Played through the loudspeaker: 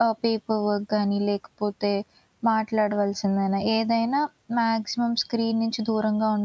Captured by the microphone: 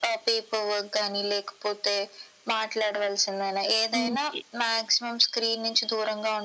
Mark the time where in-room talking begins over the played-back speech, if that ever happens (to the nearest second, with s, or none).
4 s